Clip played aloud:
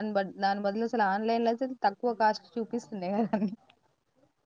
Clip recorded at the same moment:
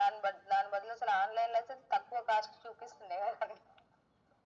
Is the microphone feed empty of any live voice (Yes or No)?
Yes